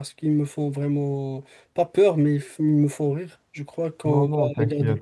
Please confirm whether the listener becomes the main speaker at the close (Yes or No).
Yes